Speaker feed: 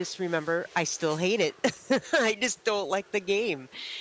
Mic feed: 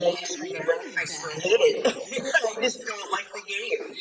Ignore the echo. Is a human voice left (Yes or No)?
Yes